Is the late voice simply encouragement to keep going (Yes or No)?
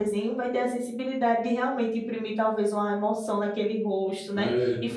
Yes